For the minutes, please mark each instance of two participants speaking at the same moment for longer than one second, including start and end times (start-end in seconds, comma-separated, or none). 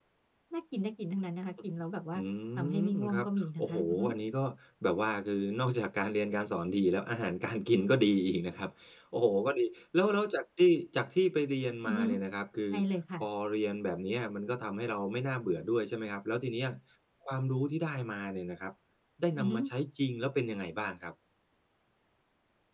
2.7-4.0